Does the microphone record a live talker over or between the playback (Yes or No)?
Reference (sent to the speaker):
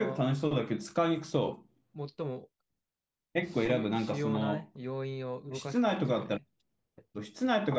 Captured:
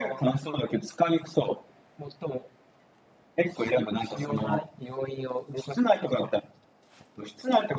No